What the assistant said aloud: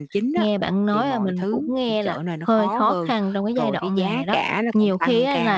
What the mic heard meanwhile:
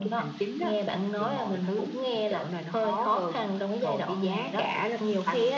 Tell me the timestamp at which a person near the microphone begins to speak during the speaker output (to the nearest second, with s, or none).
none